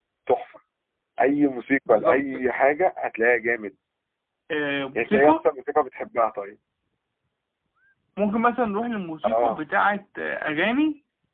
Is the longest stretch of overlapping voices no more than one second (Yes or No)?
Yes